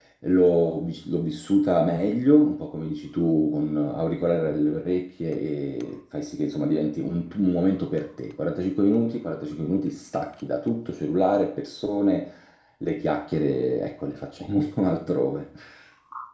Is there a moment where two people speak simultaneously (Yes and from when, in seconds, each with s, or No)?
No